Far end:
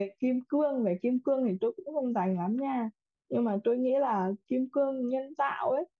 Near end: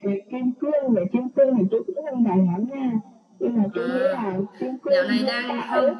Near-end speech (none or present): present